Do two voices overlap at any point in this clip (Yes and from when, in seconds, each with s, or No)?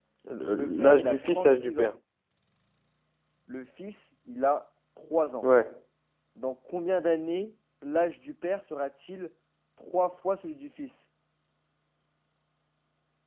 Yes, from 0.5 s